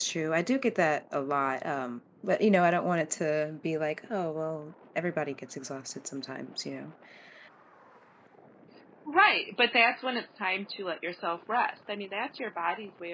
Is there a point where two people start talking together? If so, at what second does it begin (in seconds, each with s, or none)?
none